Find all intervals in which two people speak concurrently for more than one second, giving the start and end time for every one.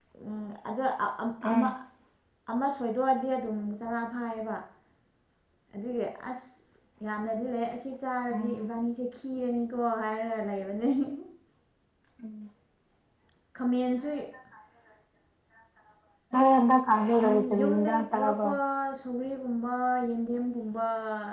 17.2-18.5

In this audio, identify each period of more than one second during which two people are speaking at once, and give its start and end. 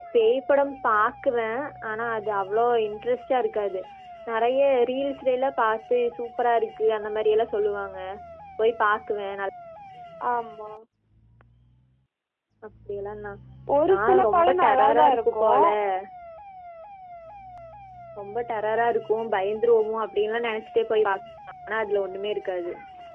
13.9-15.4

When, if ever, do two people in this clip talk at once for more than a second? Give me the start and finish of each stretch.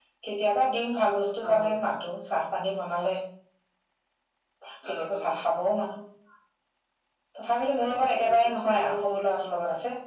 7.9-9.2

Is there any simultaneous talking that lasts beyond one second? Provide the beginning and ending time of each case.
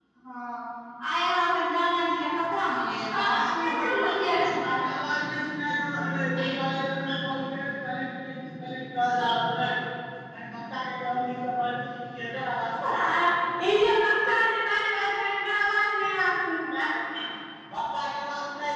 3.0-4.8

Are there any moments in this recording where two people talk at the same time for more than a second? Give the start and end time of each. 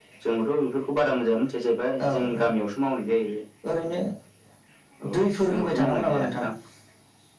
5.1-6.4

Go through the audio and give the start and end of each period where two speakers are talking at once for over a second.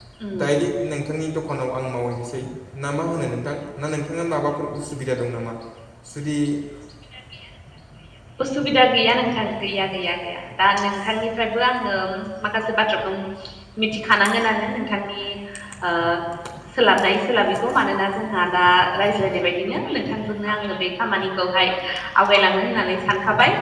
none

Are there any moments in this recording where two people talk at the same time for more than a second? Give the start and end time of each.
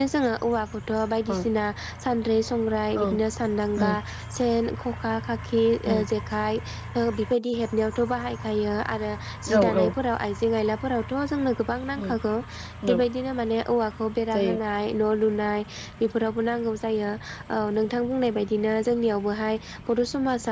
none

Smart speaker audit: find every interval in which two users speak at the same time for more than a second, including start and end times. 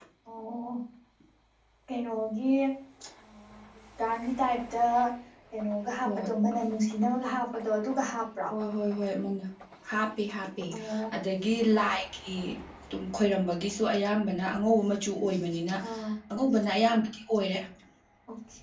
none

